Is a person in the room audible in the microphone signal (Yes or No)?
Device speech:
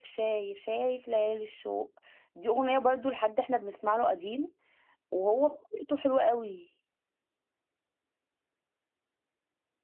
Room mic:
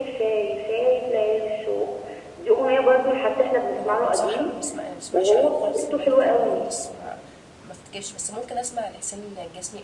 Yes